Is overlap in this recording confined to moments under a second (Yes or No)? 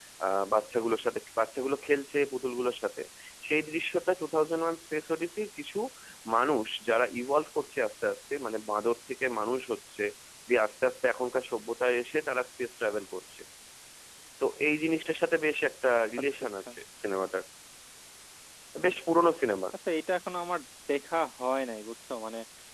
Yes